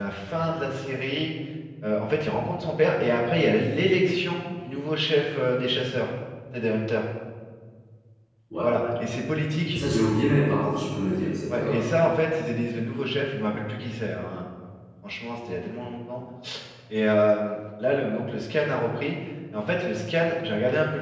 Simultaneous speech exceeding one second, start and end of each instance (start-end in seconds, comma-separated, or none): none